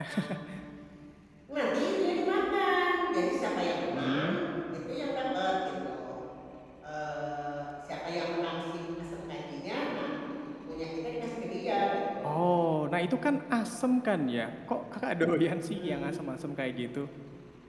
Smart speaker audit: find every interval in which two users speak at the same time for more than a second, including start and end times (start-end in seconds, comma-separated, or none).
none